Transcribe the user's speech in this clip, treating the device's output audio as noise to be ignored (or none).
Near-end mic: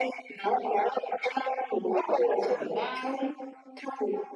đảm đang ấy.